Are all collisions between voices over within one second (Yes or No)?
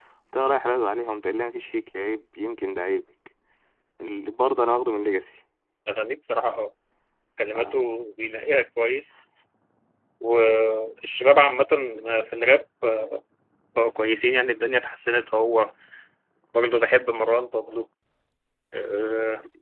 Yes